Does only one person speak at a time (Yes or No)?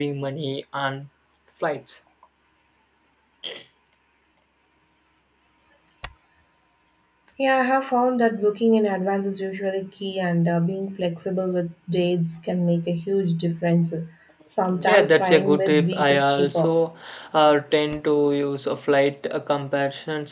No